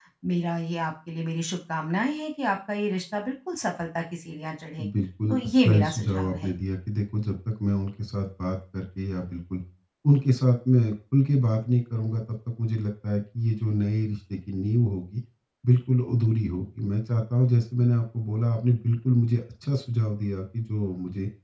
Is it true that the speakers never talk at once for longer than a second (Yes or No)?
No